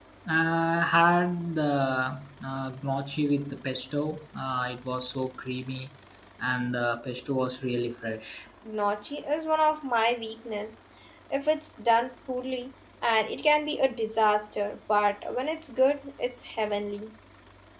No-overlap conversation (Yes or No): Yes